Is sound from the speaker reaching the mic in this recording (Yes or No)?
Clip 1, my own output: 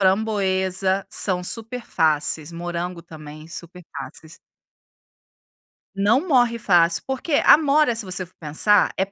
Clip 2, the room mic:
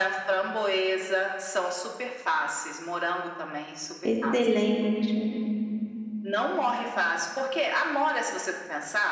Yes